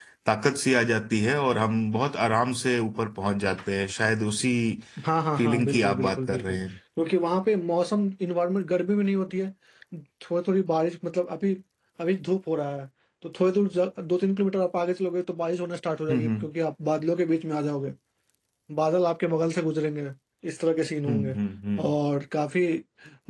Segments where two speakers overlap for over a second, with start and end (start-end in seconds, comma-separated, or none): 5.4-6.6